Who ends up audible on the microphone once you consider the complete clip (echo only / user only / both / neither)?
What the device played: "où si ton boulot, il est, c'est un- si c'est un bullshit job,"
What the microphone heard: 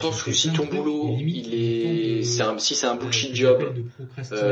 both